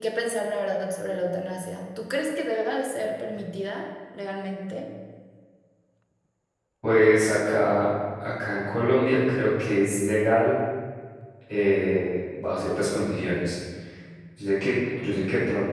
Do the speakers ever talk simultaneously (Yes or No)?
No